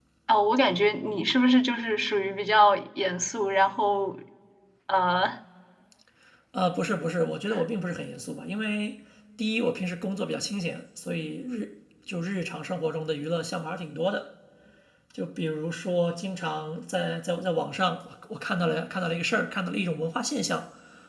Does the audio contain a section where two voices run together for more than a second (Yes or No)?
No